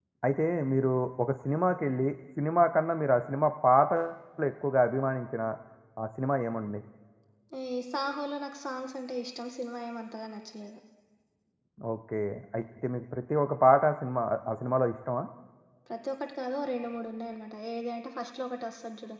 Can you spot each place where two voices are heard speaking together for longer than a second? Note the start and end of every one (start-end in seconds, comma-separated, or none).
none